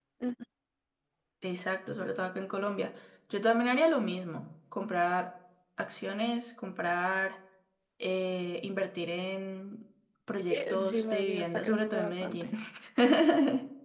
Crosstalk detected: Yes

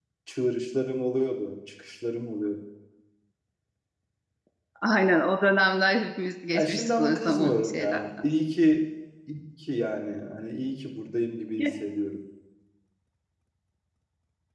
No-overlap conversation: No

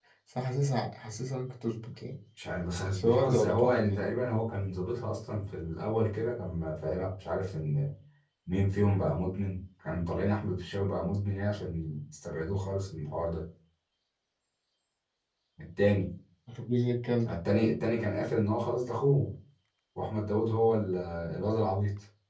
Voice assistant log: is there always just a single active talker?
No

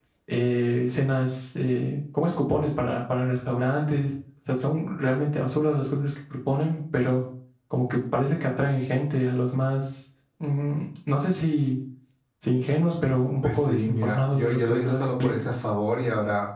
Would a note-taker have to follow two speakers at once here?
Yes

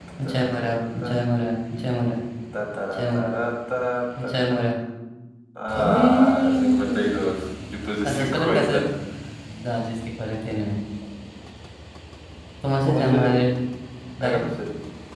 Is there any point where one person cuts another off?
Yes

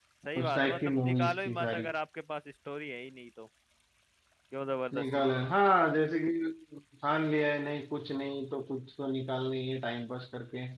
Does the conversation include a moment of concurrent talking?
Yes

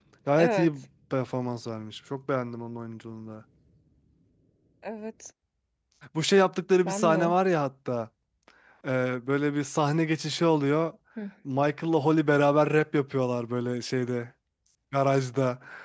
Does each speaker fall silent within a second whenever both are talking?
Yes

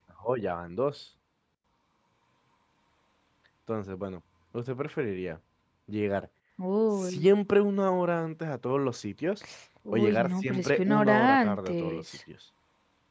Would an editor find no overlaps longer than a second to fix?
No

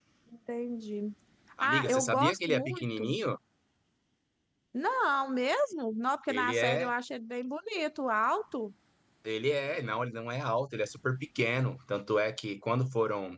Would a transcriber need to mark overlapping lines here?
Yes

